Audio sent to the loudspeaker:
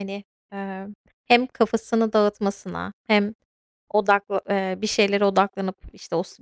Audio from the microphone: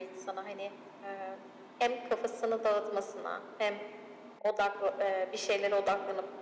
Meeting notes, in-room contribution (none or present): none